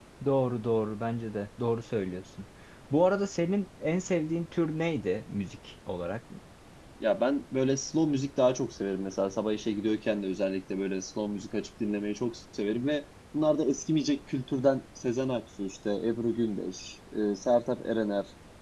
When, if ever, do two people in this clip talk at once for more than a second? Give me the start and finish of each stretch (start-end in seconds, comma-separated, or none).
none